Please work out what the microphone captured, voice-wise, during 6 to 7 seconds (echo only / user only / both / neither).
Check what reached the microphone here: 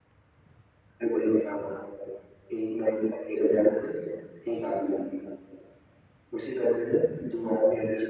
echo only